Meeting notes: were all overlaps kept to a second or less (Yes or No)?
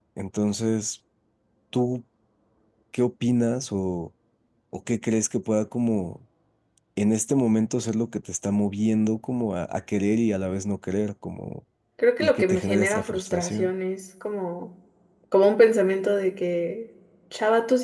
No